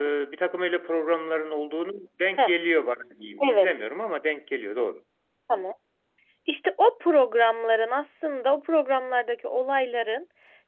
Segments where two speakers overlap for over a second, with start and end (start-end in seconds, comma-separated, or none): none